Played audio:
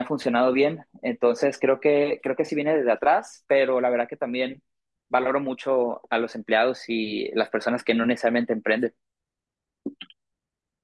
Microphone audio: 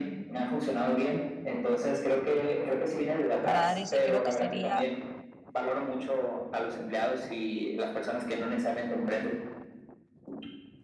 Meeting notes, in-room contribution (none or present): present